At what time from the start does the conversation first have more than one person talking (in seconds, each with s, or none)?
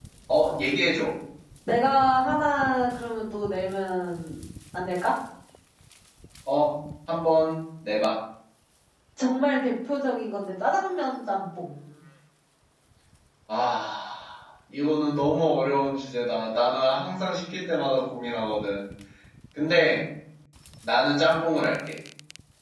none